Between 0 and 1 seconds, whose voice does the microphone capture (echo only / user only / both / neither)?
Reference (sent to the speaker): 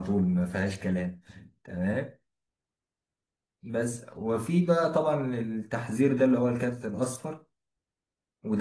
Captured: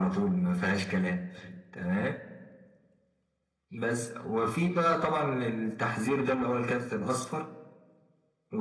echo only